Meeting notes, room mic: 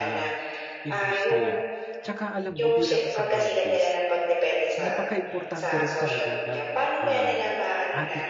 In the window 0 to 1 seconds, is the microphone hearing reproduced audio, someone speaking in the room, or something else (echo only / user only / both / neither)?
both